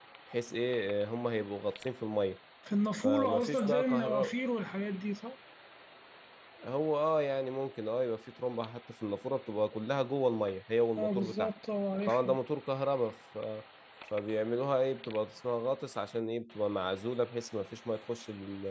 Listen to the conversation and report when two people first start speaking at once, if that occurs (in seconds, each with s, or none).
3.0 s